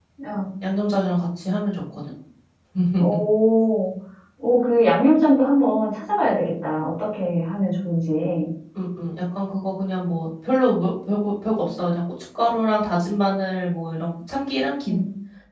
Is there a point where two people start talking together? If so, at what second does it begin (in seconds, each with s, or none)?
none